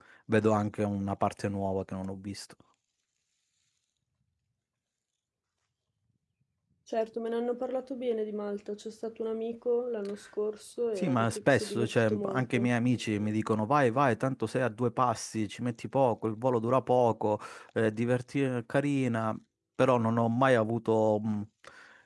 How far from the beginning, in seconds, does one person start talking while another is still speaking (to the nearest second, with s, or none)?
11 s